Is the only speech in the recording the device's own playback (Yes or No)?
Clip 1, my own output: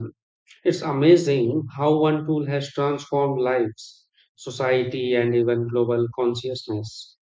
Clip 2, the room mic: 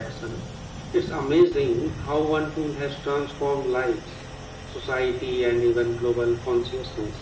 Yes